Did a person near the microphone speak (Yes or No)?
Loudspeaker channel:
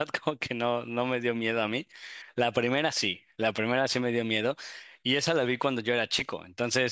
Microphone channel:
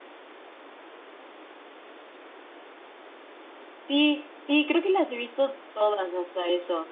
Yes